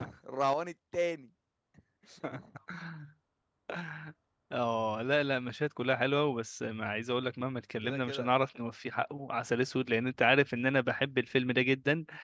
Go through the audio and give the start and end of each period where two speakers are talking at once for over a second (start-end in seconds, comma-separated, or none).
none